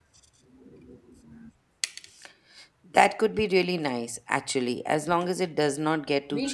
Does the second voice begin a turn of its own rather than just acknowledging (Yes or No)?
Yes